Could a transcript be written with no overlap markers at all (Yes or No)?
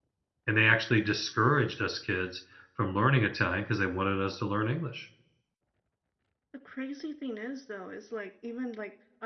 Yes